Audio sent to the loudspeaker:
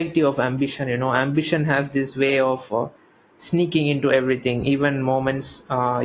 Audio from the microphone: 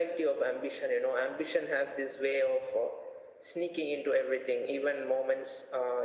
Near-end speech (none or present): none